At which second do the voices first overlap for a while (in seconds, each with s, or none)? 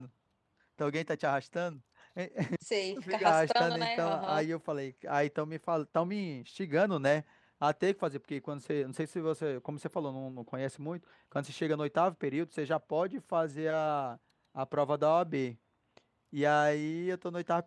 3.0 s